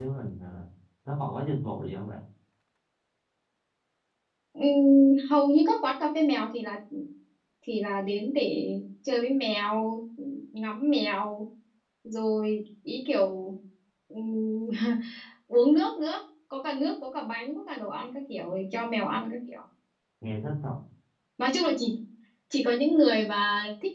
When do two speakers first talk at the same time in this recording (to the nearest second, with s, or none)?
none